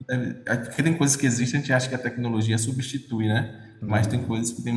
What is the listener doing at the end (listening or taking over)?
listening